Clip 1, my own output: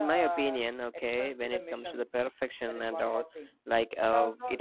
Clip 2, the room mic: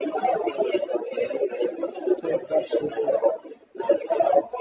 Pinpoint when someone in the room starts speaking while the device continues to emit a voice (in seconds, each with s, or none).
2.2 s